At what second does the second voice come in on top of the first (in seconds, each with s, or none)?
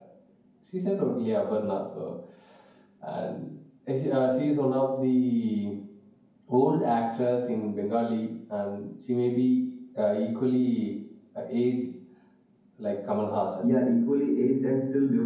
none